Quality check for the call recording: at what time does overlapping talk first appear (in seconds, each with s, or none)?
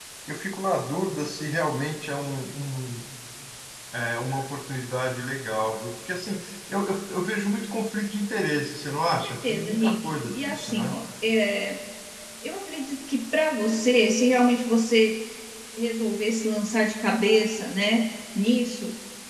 9.2 s